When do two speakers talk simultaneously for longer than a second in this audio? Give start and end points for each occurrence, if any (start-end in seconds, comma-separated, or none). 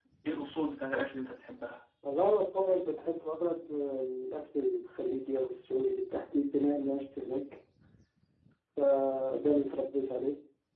none